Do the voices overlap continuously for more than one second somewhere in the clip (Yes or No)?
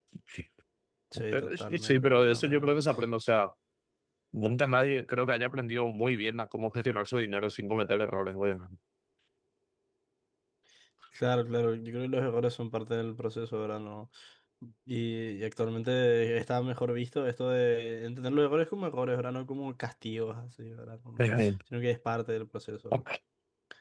Yes